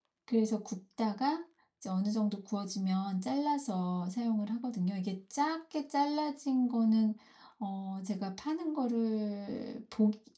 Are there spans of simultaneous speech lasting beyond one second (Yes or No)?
No